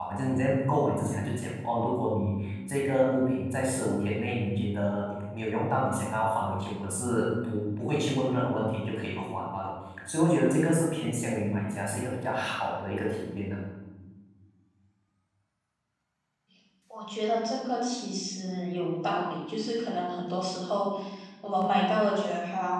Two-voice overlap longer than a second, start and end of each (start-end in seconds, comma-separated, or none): none